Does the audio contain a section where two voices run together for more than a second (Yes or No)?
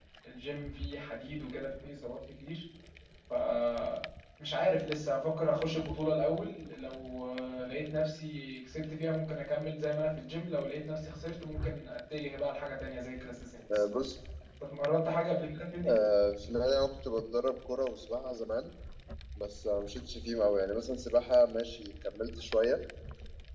No